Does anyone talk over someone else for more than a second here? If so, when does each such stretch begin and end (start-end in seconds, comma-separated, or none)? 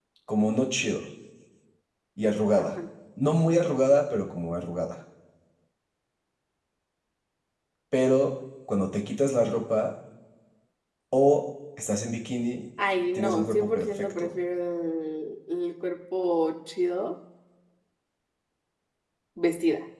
13.1-14.4